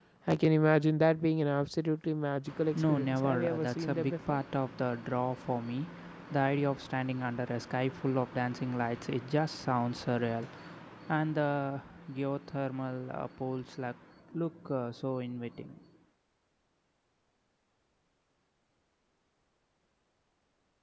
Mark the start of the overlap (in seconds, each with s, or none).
2.8 s